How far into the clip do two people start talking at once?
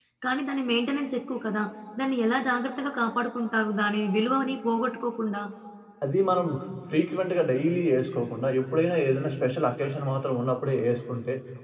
none

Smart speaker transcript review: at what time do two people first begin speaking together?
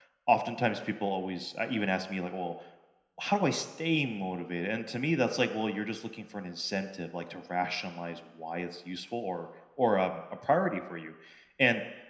none

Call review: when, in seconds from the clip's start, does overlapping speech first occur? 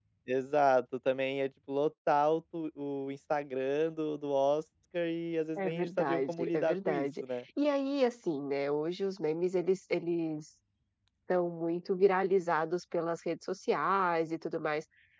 5.6 s

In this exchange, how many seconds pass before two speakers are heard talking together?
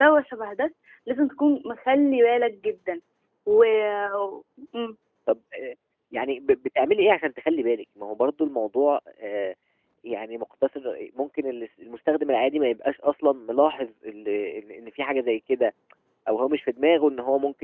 none

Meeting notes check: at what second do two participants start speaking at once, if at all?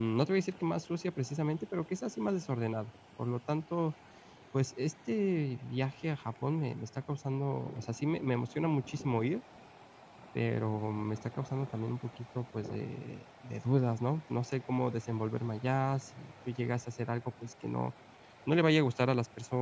none

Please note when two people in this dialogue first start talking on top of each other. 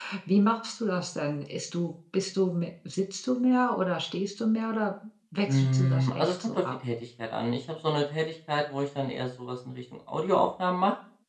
5.5 s

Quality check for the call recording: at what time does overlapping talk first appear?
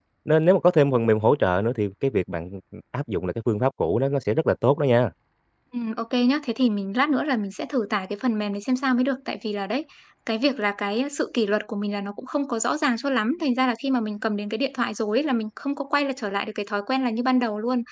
none

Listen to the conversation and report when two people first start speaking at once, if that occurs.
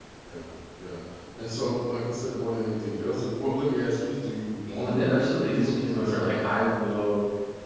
4.8 s

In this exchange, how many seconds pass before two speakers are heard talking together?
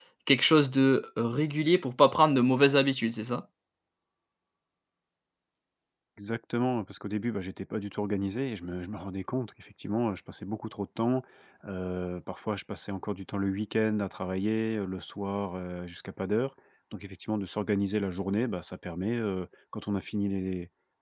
none

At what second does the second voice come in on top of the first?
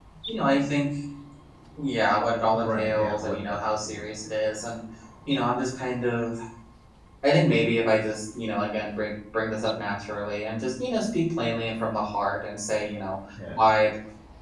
2.5 s

